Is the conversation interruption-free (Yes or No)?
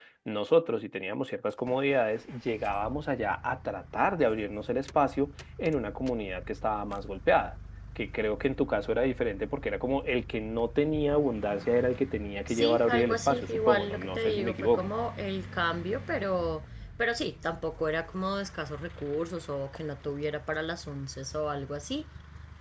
No